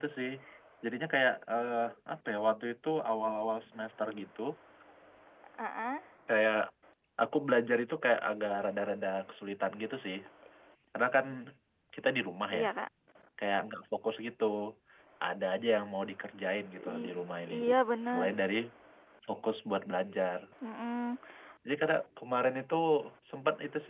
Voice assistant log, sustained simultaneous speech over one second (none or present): none